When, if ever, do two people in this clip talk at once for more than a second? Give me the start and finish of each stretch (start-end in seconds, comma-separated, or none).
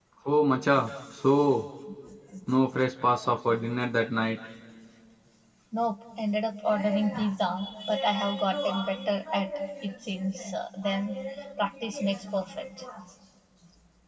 none